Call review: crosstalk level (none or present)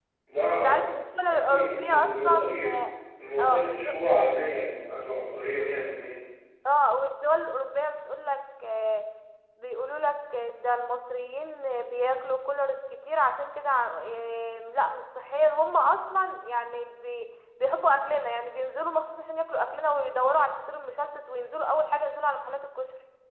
present